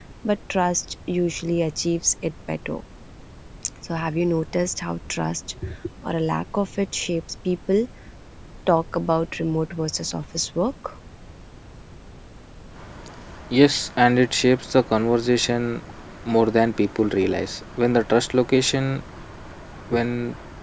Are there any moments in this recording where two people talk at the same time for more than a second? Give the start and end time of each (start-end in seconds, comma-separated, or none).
none